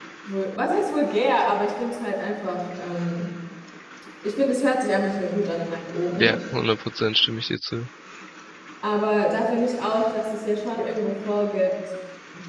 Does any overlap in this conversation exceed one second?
No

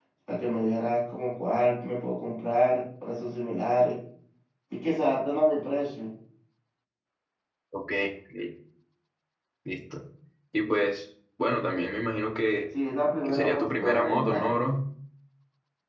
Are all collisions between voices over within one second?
No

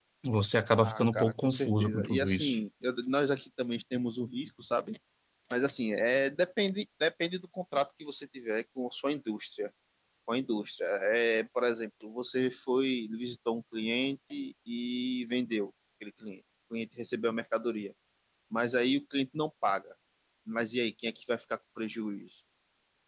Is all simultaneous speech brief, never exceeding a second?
No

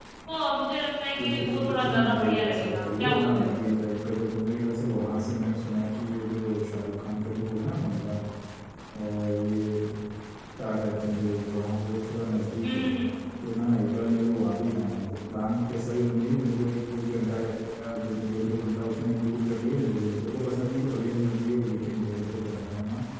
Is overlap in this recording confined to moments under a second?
No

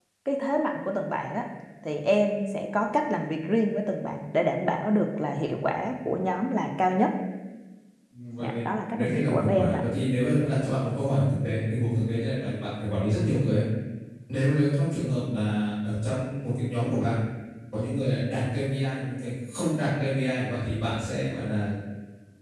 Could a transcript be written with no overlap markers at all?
No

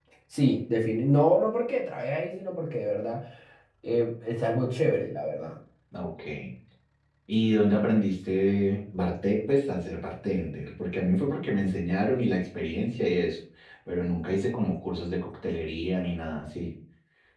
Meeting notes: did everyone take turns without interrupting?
Yes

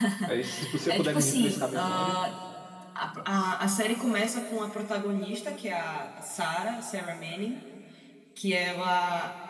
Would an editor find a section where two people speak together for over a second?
Yes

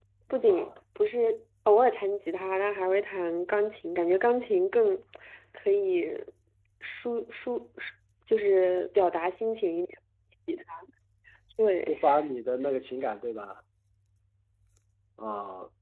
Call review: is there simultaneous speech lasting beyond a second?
No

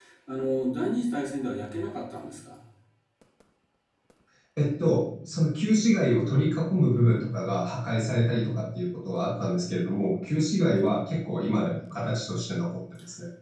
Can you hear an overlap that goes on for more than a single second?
No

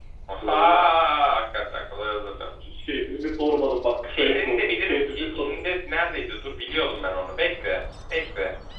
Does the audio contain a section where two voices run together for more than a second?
Yes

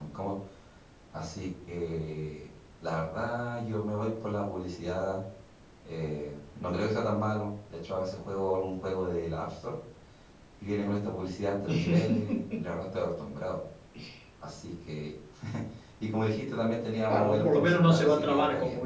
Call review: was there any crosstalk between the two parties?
Yes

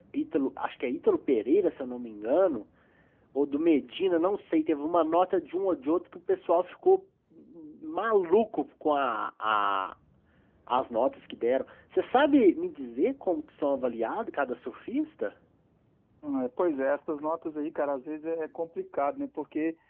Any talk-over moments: No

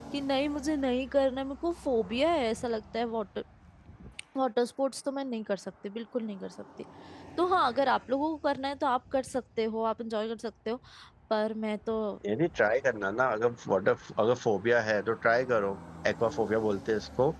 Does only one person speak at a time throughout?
Yes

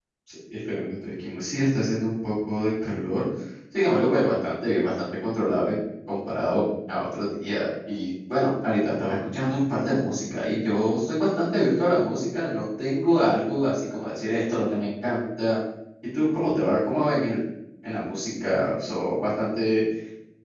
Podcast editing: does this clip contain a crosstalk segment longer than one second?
No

